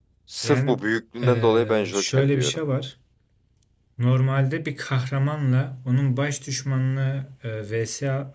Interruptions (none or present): present